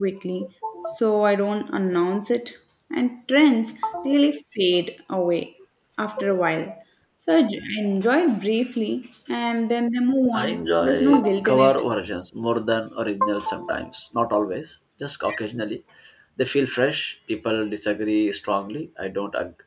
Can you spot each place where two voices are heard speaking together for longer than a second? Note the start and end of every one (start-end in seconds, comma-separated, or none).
10.3-11.7